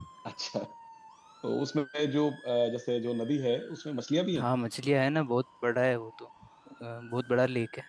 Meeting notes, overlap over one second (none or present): none